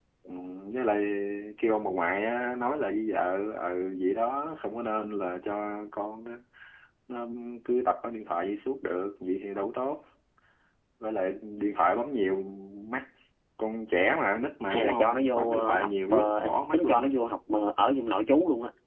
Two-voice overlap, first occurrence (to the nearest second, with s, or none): 15 s